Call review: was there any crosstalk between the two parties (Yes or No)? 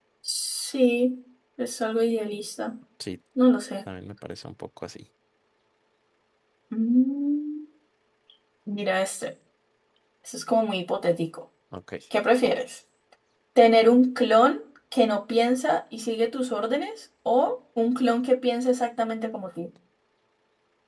No